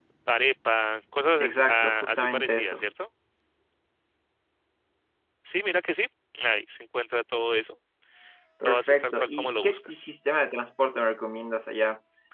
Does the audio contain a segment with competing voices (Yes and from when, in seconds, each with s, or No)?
Yes, from 1.4 s